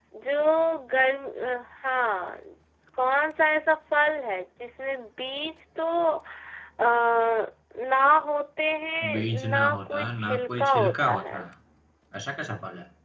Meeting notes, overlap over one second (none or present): present